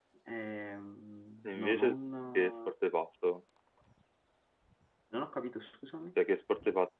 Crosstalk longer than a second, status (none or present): none